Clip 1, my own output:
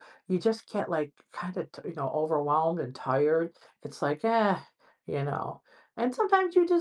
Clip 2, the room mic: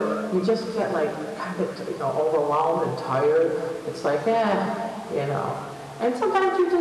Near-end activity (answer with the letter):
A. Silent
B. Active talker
A